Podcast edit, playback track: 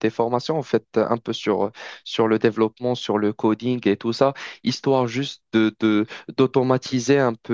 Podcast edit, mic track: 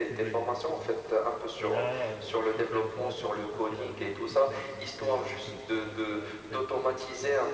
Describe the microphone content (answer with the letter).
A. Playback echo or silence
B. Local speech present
B